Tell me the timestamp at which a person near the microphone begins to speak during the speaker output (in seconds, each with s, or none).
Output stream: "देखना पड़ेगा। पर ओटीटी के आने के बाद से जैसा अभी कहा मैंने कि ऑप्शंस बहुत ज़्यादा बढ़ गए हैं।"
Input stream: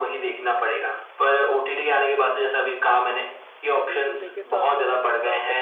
3.8 s